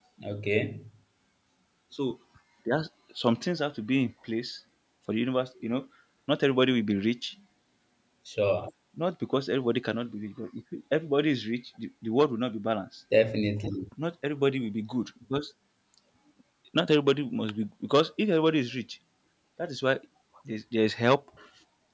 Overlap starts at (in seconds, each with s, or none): none